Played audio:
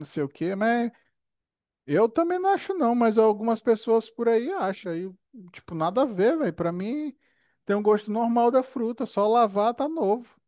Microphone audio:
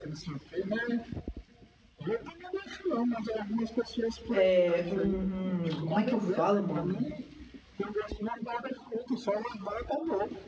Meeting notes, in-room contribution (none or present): present